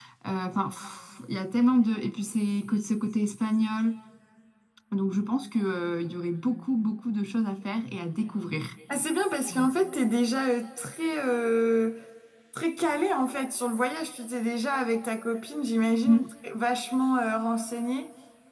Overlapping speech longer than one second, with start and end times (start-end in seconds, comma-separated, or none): none